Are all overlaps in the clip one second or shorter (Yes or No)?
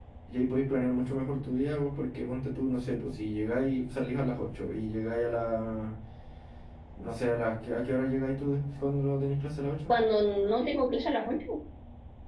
Yes